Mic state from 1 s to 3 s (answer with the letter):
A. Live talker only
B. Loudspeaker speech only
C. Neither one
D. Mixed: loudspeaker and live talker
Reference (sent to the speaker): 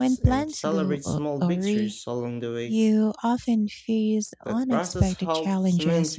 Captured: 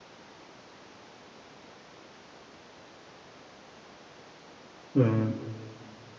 C